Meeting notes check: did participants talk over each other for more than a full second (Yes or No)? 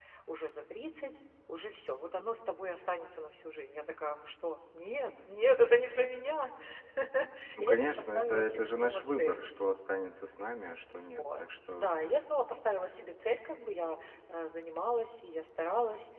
Yes